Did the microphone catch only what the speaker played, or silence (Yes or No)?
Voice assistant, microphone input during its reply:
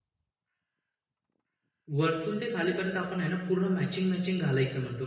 No